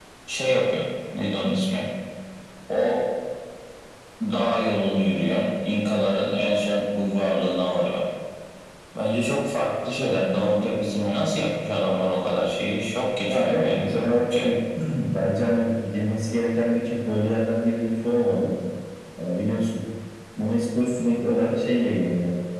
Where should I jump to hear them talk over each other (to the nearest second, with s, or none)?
13 s